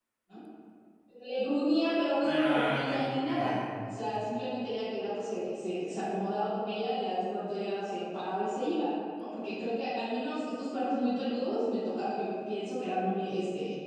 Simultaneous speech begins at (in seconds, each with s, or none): 2.2 s